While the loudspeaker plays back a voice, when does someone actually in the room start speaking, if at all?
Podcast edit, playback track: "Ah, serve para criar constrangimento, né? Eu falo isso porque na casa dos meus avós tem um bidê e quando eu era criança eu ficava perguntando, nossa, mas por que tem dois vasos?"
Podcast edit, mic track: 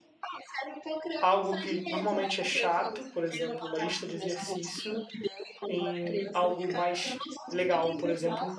1.2 s

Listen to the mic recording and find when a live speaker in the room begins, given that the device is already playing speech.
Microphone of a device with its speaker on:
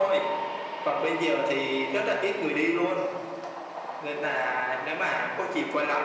none

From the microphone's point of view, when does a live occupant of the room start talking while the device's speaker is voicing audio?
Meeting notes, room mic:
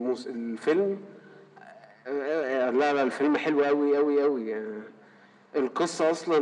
none

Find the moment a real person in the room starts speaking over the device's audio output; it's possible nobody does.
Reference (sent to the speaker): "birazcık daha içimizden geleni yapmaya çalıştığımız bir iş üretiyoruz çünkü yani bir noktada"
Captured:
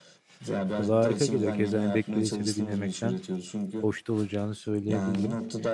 0.8 s

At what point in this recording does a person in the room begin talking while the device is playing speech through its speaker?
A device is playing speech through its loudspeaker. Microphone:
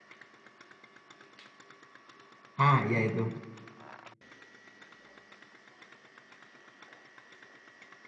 2.6 s

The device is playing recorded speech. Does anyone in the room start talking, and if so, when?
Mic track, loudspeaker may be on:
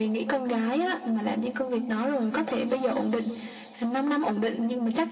none

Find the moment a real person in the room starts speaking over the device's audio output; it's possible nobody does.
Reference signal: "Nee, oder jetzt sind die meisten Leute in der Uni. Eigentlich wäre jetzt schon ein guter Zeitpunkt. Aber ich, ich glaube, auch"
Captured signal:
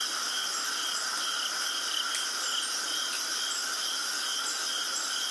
none

